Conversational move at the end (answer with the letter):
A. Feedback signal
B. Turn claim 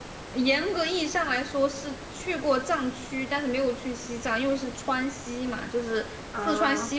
A